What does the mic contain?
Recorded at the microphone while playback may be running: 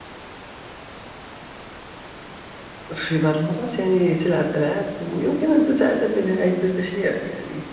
user only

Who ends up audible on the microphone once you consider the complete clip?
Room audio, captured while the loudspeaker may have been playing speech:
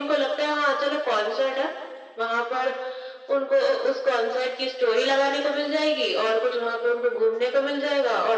echo only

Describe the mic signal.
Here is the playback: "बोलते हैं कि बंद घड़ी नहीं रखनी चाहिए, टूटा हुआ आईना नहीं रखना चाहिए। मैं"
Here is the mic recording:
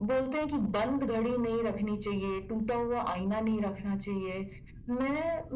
echo only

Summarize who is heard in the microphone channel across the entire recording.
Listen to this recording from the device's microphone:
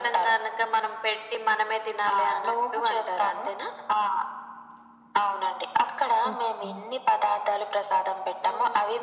both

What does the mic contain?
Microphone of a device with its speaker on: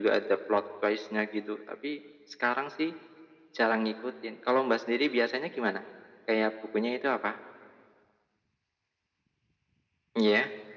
echo only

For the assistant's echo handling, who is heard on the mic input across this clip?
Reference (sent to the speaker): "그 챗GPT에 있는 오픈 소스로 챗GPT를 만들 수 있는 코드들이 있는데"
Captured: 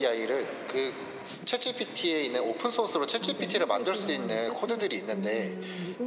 both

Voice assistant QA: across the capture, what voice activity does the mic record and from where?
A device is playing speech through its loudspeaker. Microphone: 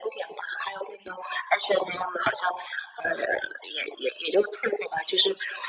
echo only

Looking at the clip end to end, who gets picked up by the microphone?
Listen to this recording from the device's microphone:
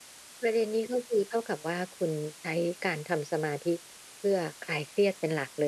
echo only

